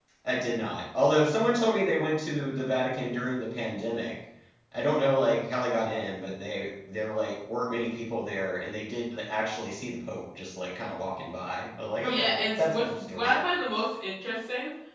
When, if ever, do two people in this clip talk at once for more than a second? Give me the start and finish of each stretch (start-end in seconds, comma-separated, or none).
12.0-13.3